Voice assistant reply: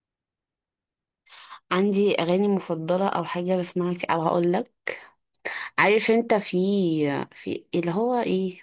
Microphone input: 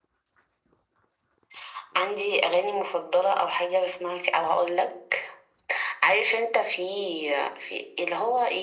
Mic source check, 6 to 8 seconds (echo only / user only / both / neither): echo only